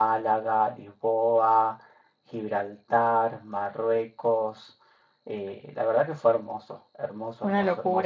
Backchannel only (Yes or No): Yes